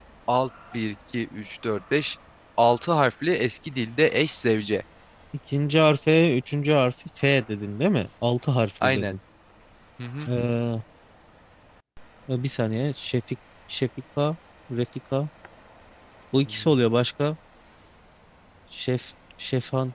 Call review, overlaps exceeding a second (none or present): none